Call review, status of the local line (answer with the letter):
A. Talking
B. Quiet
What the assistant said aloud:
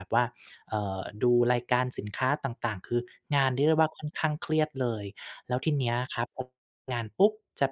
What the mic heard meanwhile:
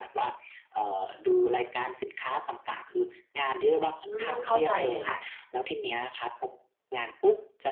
A